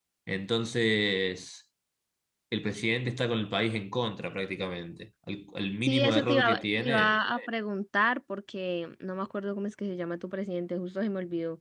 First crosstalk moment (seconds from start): 5.8 s

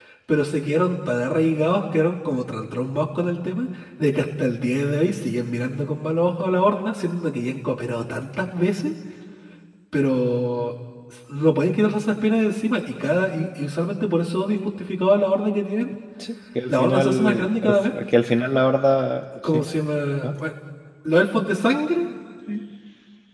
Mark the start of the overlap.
16.7 s

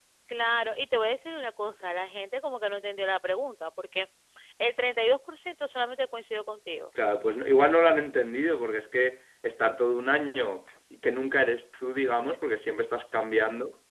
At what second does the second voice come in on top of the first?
none

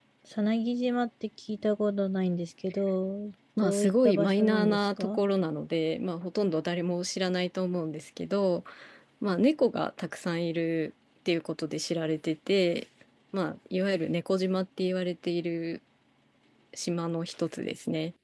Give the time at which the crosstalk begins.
3.6 s

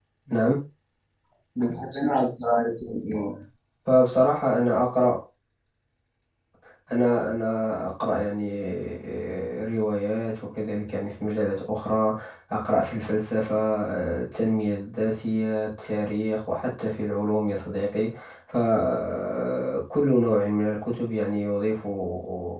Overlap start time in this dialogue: none

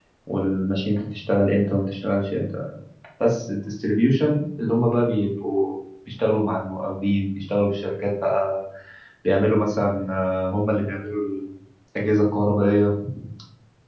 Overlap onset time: none

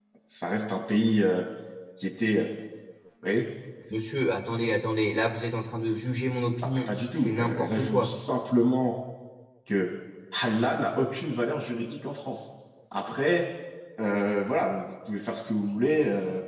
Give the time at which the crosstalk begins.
6.6 s

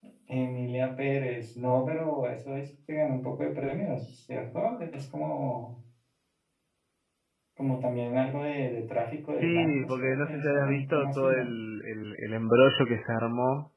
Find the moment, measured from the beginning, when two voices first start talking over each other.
9.4 s

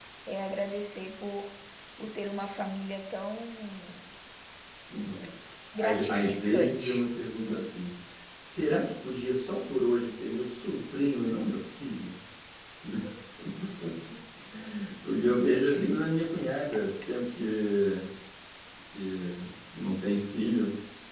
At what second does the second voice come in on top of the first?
5.8 s

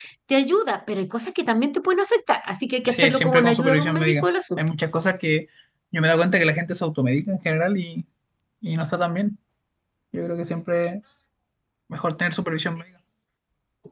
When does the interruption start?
2.9 s

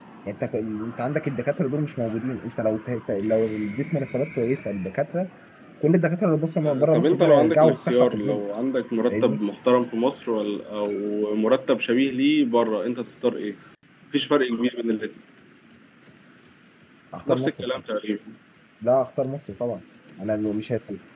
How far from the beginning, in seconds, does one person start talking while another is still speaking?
6.6 s

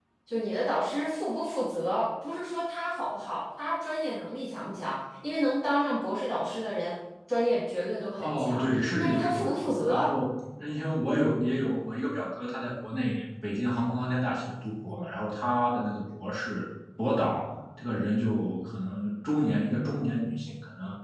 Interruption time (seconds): 8.2 s

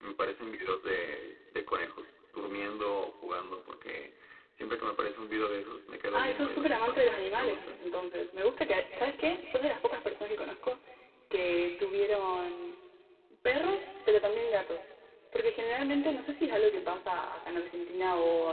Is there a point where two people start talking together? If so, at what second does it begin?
6.1 s

